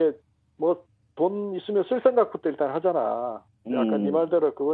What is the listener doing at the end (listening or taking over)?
listening